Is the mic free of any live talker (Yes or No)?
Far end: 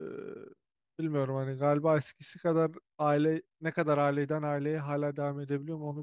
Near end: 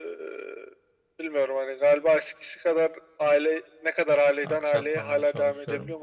No